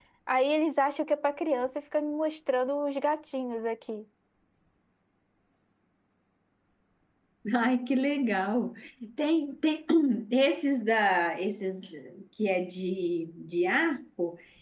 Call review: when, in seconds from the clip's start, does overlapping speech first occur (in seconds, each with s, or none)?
none